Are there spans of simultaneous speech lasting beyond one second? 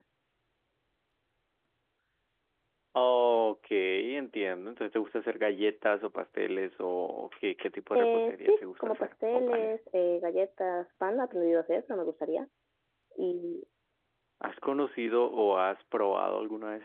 Yes, from 7.9 s

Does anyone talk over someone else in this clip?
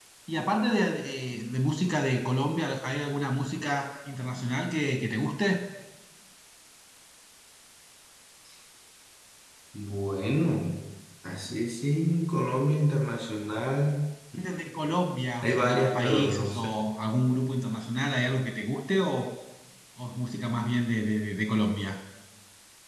Yes, from 15.4 s

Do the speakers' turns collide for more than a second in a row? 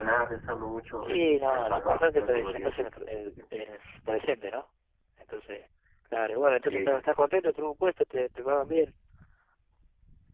Yes, from 1.0 s

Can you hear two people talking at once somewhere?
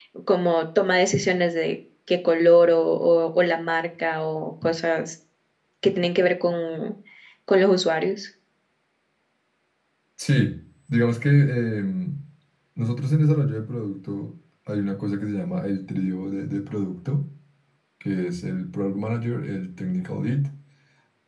No

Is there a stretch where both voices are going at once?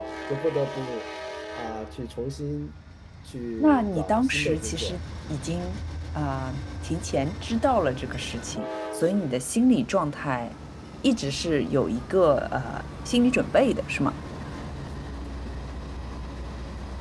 Yes, from 3.6 s

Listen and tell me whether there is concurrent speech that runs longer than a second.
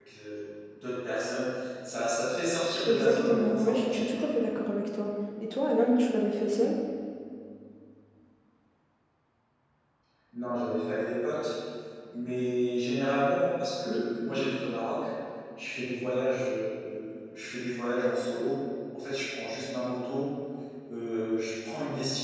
Yes, from 2.9 s

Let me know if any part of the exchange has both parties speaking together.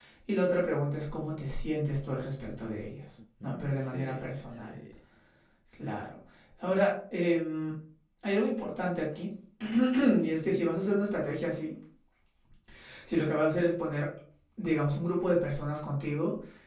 Yes, from 3.4 s

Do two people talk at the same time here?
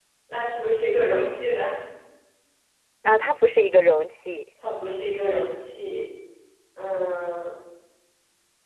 No

